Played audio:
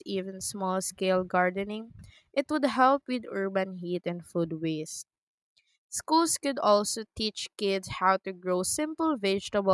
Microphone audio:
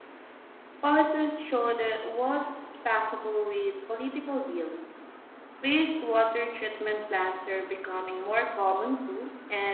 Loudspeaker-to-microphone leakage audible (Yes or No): No